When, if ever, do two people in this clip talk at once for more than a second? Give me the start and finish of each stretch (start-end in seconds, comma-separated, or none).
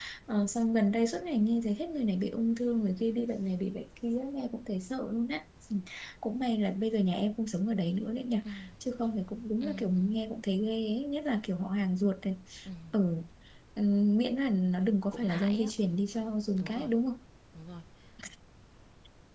none